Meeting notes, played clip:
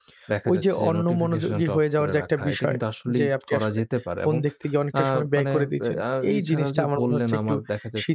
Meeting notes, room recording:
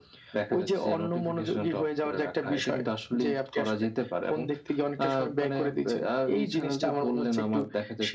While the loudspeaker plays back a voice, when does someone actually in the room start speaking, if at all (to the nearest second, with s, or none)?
none